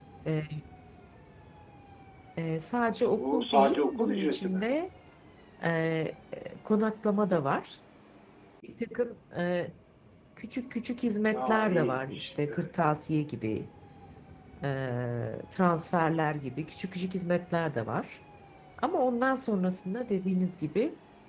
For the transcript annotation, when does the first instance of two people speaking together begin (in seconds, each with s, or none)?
3.1 s